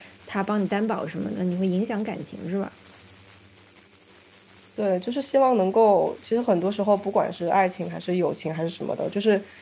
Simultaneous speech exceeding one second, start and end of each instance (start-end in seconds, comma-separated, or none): none